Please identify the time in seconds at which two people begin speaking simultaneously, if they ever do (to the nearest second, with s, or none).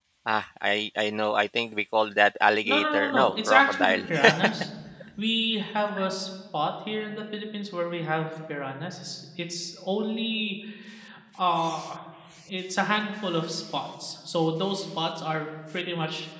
3 s